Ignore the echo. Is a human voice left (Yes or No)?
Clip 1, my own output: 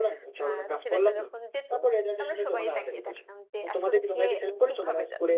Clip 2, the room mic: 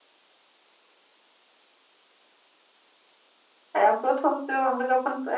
Yes